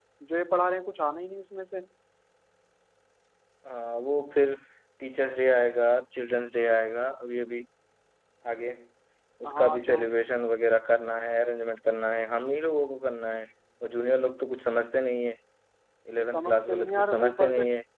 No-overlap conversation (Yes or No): No